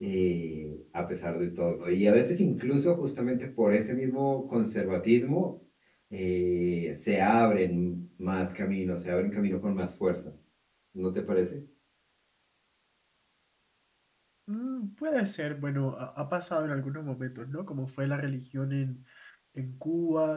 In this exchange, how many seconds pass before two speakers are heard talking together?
none

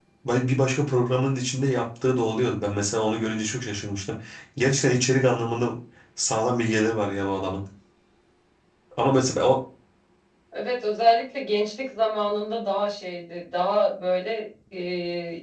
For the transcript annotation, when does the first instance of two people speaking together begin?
none

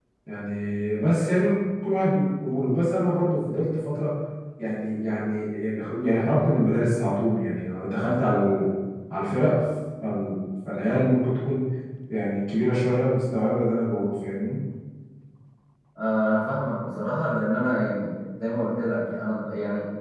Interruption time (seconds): none

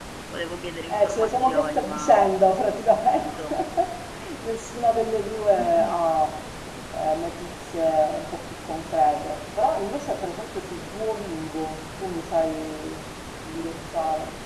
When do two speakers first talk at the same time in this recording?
0.9 s

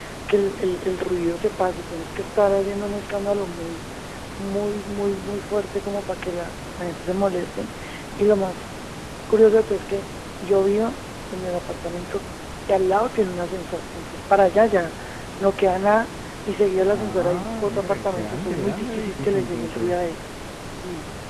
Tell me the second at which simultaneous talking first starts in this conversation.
16.9 s

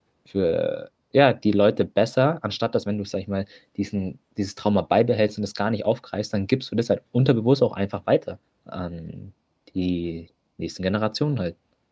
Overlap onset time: none

